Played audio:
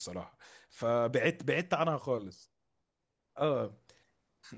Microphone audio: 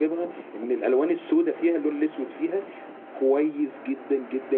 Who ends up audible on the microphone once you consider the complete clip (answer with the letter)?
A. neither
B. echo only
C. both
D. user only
D